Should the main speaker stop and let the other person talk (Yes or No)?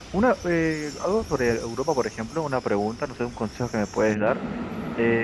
No